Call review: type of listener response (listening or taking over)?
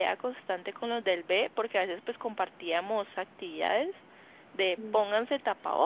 listening